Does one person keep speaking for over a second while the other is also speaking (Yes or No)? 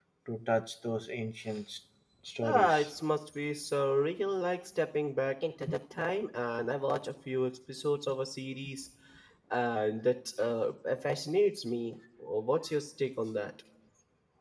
No